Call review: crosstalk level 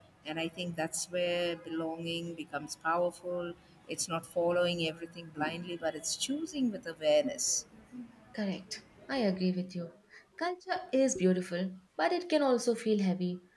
none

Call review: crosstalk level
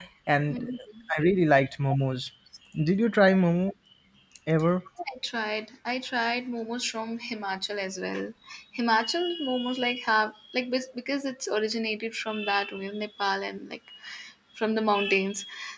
none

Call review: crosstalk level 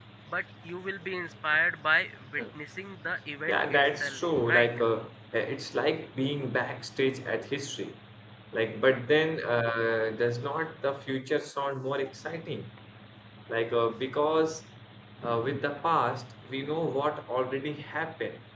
present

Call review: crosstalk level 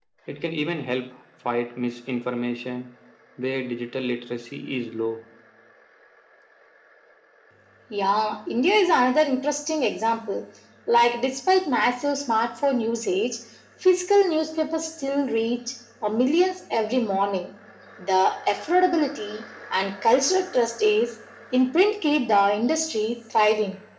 none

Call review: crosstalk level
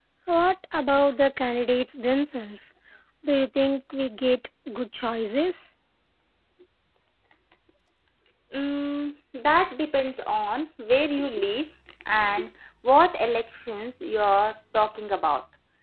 none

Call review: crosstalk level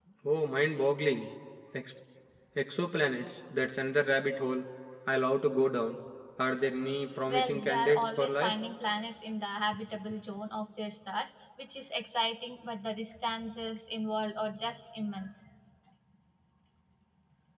present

